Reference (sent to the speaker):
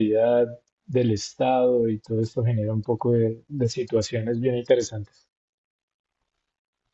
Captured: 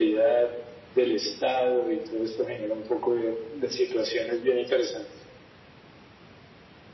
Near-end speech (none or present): none